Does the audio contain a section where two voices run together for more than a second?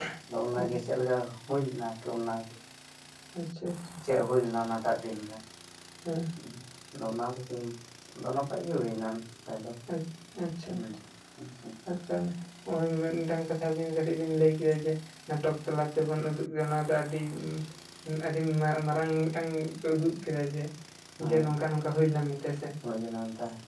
No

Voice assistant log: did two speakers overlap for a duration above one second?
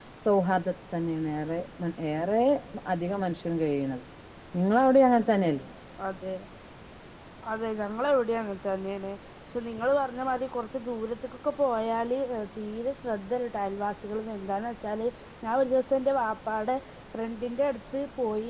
No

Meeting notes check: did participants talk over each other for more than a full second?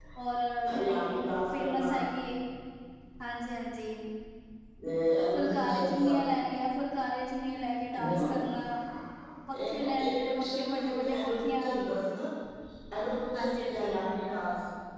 Yes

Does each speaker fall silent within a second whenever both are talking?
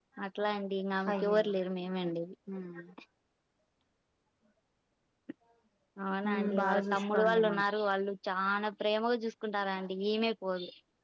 No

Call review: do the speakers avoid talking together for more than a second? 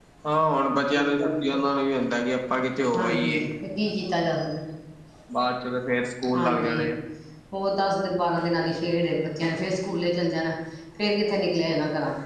Yes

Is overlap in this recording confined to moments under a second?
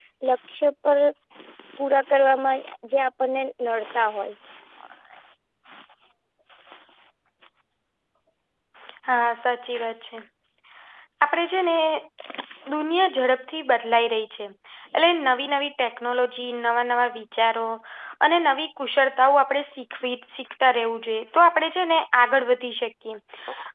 Yes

